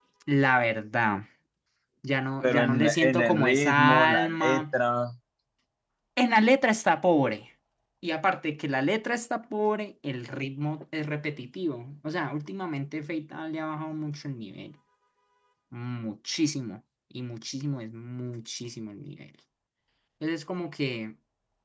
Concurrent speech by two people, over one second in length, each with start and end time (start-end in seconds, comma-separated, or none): 2.4-4.6